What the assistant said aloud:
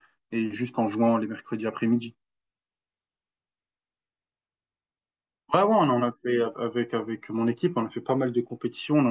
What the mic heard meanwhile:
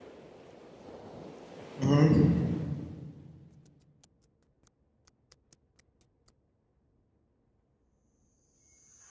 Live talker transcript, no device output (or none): Mhm.